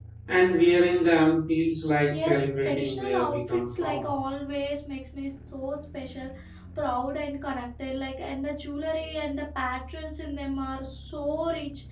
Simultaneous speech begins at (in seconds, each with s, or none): 2.1 s